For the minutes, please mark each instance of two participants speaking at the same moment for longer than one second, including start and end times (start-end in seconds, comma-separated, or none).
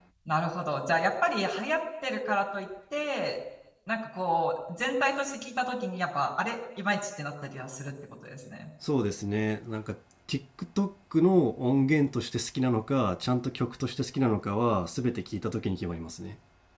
none